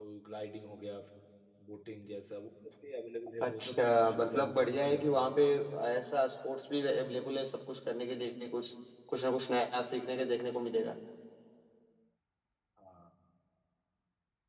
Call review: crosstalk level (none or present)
present